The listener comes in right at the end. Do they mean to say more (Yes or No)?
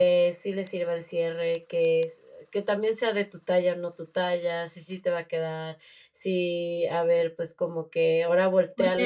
Yes